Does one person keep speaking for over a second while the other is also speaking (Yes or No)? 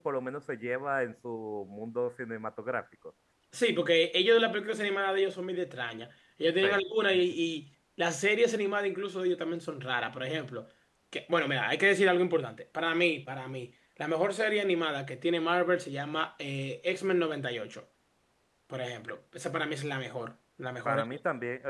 No